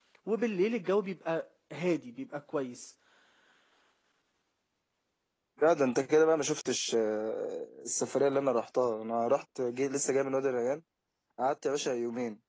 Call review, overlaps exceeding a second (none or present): none